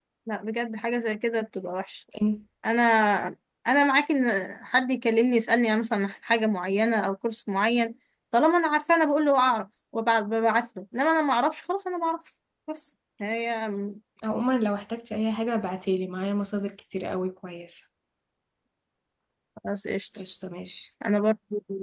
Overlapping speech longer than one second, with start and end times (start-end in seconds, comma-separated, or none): none